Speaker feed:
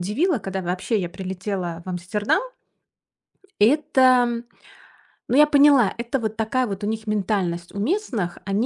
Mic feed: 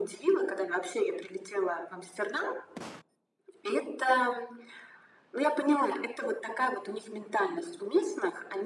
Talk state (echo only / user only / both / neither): echo only